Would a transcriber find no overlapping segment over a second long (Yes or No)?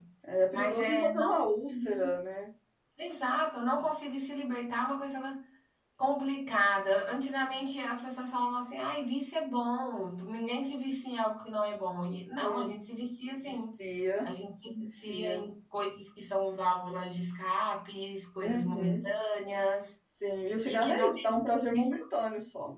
No